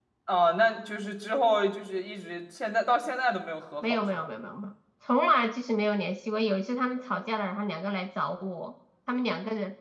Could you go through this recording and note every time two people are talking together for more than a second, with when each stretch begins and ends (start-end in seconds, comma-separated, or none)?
none